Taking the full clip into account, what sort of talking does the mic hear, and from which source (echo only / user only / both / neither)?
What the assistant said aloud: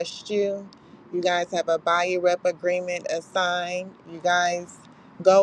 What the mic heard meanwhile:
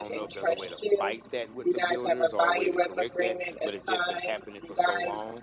both